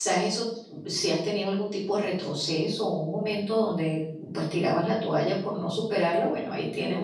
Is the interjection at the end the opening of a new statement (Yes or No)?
No